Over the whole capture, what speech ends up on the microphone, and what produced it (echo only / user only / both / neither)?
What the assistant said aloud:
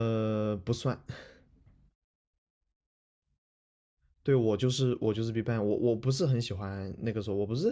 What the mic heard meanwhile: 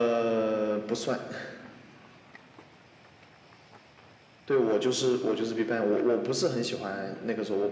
echo only